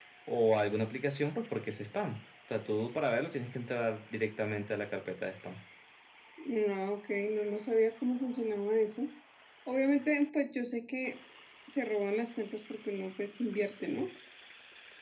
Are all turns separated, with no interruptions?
Yes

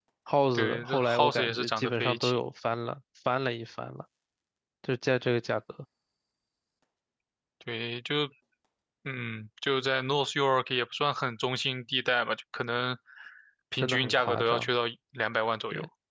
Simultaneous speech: Yes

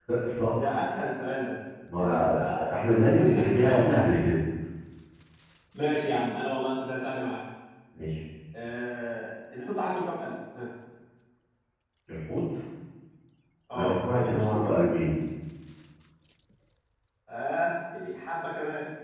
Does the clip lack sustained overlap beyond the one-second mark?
No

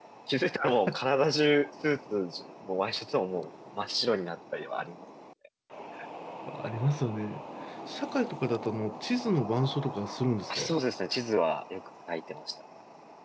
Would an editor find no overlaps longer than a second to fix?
Yes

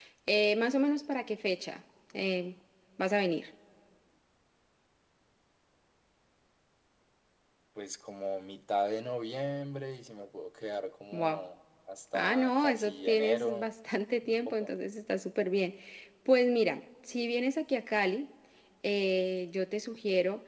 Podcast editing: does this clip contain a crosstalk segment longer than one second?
Yes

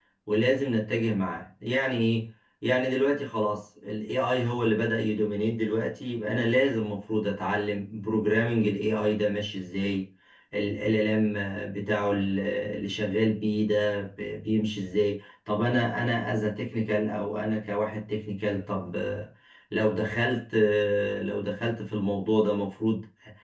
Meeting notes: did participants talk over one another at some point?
No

